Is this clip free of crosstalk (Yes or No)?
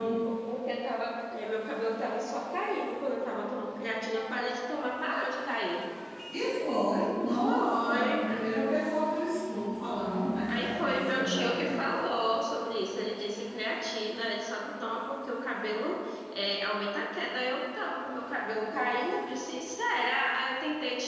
No